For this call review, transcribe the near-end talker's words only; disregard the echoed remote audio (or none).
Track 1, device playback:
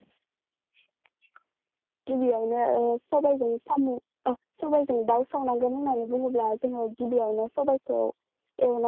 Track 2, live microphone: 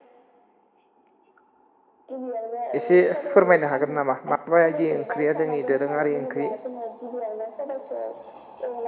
एसे फोरमायनो हागोन नामा माबायदि ओंख्रिया जोंनि दोरोङारि ओंख्रि?